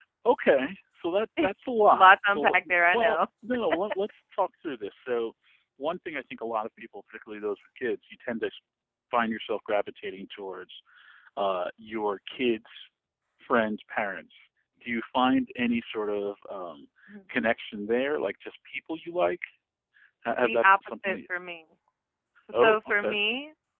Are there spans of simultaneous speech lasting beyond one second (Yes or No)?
Yes